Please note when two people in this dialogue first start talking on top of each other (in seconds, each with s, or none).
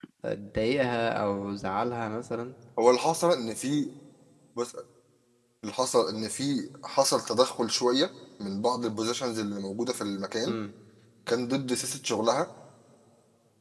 none